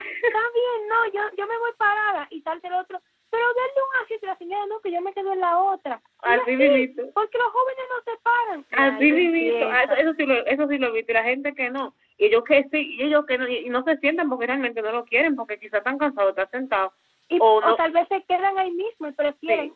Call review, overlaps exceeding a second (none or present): present